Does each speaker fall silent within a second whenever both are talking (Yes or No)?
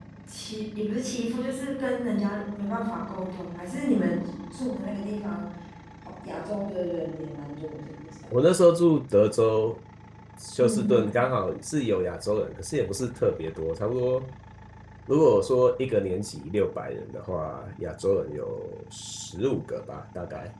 Yes